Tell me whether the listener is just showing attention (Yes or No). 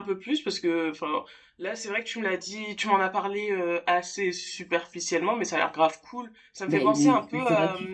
No